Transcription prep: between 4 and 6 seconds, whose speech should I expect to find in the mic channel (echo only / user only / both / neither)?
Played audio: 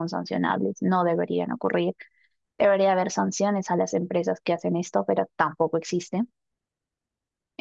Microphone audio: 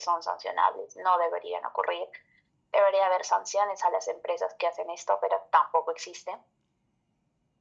echo only